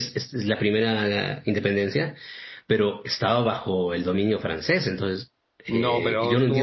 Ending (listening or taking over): taking over